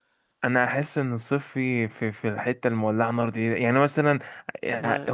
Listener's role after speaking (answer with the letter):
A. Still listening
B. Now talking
A